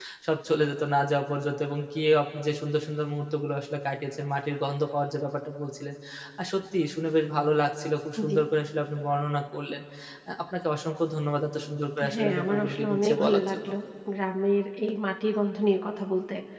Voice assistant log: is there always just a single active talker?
No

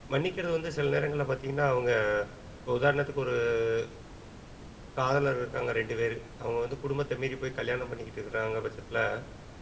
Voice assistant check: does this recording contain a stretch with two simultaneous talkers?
No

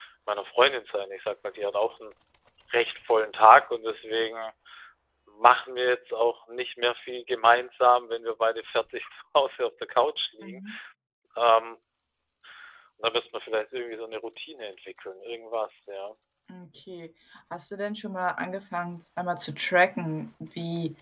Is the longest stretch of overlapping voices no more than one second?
Yes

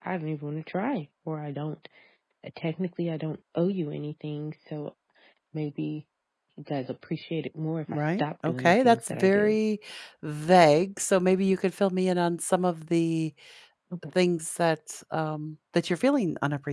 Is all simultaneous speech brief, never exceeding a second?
No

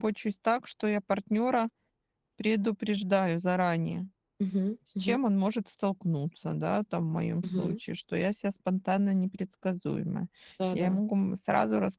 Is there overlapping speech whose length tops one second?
No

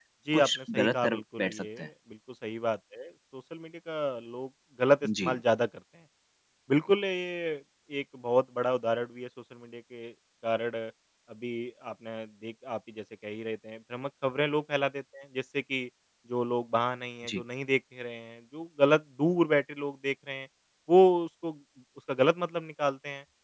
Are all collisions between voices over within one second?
No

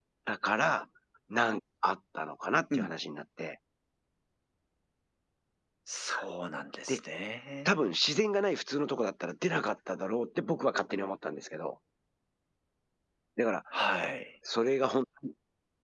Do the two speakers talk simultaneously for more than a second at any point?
No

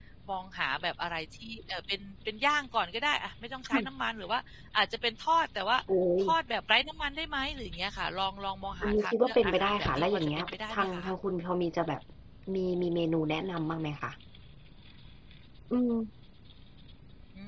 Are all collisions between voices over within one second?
No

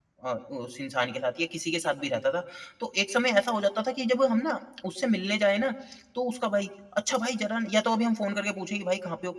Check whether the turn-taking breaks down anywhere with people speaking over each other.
No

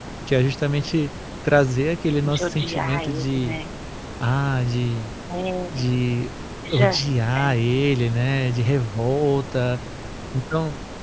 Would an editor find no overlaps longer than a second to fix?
No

